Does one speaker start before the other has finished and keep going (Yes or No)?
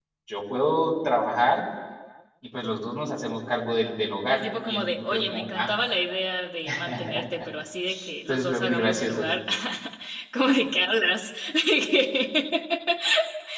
Yes